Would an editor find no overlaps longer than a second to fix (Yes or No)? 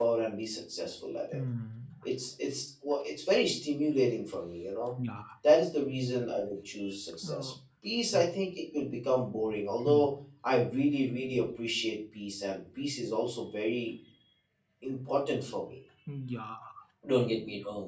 Yes